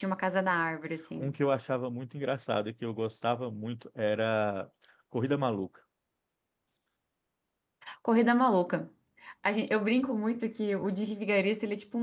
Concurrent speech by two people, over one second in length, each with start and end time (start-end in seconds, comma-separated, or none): none